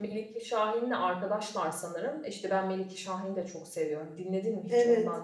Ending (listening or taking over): taking over